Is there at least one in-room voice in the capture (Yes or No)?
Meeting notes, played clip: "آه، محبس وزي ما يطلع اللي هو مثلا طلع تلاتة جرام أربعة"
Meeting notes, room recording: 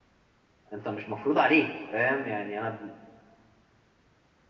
Yes